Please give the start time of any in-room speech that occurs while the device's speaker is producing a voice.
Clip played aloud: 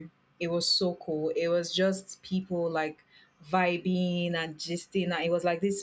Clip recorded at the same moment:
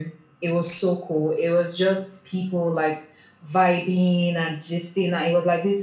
none

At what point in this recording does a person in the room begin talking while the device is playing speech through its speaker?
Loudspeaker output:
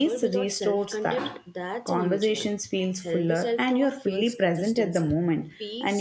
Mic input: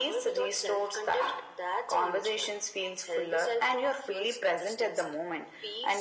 none

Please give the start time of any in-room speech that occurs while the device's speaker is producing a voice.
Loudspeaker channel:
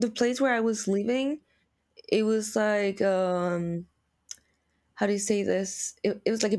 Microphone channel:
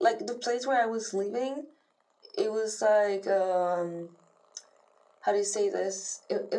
none

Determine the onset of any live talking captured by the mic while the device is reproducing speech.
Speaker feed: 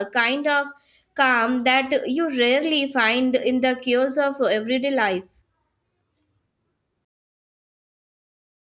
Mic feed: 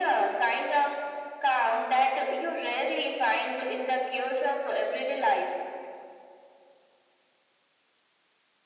none

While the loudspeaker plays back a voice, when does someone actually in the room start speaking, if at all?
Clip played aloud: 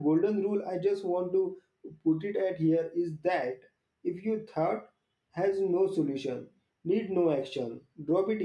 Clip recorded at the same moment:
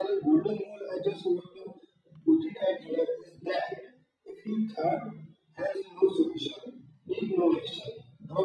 none

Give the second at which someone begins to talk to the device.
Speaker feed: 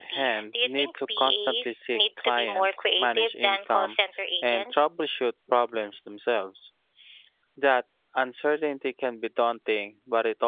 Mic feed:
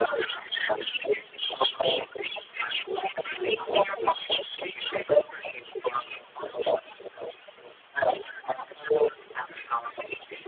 none

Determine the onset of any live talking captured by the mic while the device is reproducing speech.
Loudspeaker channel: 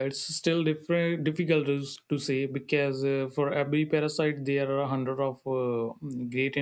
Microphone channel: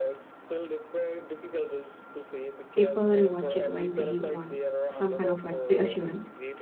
2.8 s

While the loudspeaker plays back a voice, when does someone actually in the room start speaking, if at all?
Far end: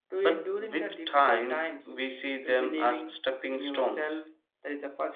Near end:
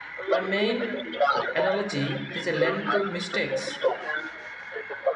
0.3 s

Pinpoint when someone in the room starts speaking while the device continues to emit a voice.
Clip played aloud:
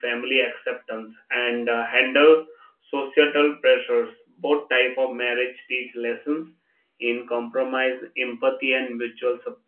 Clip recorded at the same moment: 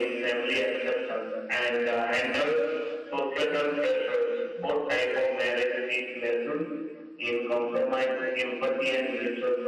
none

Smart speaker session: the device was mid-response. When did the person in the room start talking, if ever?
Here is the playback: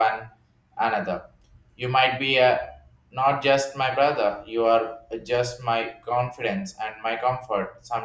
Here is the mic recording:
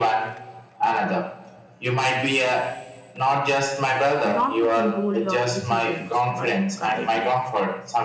4.2 s

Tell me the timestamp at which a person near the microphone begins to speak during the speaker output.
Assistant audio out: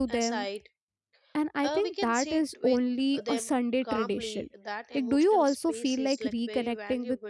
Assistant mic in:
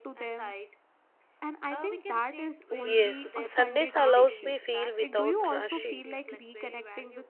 2.8 s

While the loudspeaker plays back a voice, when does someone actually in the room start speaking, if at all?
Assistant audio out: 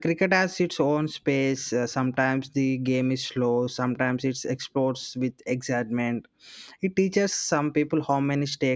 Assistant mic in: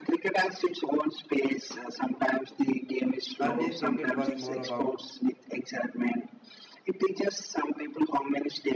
3.4 s

